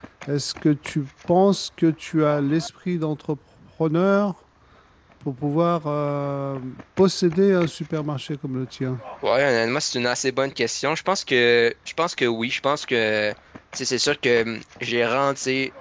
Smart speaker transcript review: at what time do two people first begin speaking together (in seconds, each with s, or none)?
none